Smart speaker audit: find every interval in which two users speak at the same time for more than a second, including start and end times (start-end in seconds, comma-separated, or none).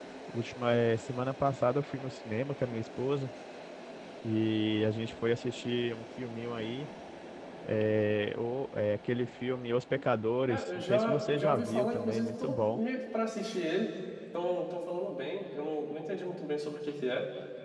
10.5-12.8